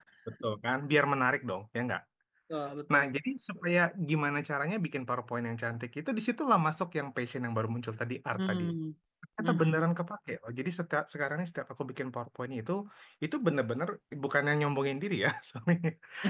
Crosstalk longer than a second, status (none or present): none